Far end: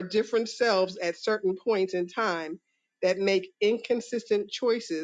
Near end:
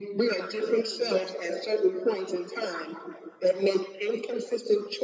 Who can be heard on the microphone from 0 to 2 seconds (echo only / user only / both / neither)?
both